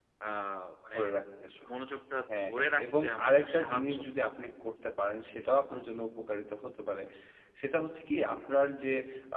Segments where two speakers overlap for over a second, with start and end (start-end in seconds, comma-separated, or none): 2.5-4.3